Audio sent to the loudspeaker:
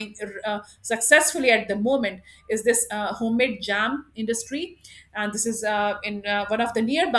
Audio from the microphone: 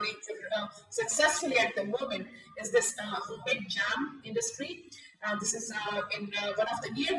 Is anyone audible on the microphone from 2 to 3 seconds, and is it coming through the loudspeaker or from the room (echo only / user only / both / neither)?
echo only